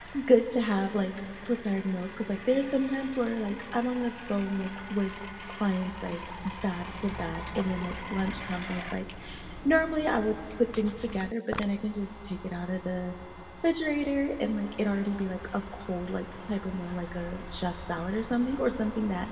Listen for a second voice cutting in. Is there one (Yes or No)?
No